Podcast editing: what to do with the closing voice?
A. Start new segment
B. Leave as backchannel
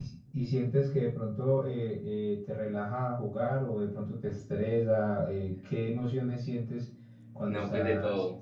A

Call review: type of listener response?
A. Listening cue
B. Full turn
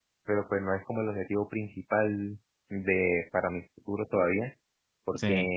A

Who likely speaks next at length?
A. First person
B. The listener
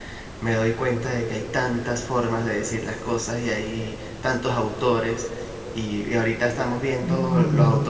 A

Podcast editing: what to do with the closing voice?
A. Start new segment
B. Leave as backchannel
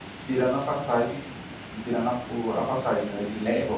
A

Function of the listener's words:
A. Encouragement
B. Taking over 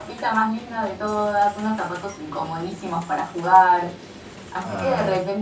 A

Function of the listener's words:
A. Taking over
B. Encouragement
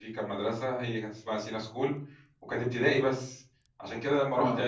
B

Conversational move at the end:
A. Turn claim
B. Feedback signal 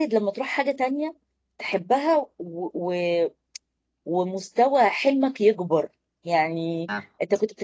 B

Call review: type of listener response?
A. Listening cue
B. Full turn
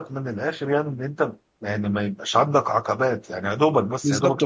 B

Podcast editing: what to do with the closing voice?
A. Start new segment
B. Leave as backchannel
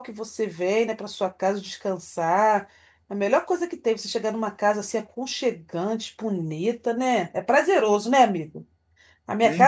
B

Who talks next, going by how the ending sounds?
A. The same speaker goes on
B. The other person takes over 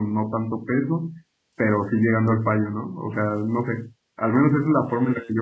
A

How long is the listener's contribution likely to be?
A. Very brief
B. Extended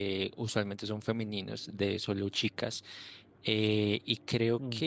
A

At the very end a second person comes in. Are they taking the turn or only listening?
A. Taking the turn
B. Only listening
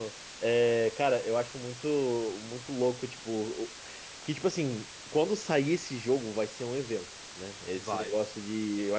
B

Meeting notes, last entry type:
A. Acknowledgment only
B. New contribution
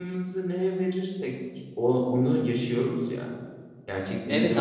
B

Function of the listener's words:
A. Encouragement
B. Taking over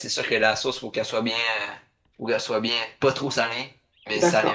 B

